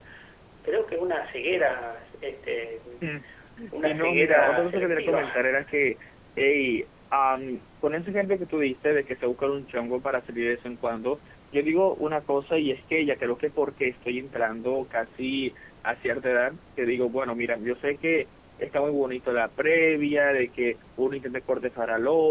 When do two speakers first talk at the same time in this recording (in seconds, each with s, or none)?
3.8 s